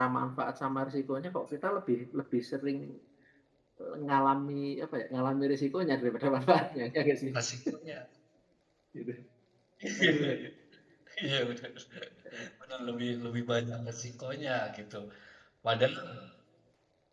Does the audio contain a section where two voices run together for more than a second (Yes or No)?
No